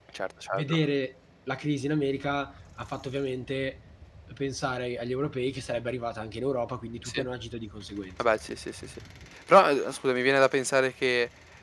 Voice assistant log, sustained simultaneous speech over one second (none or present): none